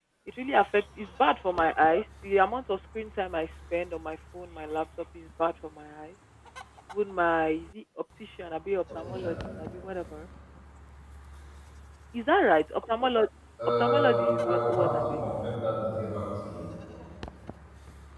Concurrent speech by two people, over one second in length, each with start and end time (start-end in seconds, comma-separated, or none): 13.8-15.2